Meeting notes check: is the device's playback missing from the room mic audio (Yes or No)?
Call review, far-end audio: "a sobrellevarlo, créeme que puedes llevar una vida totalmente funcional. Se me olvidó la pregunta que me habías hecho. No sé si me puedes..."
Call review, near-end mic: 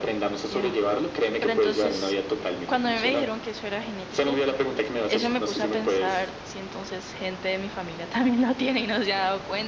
No